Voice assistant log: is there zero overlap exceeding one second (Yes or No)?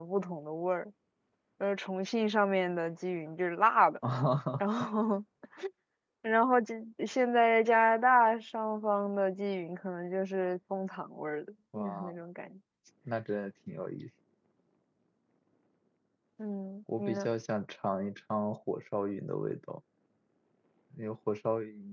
Yes